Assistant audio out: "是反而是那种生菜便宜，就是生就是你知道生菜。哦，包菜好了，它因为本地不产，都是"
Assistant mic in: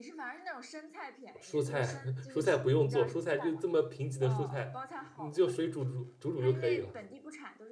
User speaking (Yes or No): Yes